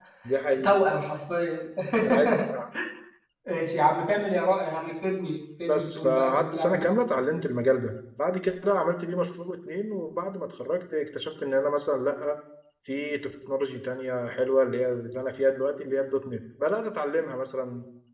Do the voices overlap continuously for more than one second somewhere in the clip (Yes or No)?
Yes